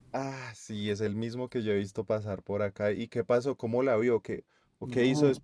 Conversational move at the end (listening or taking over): taking over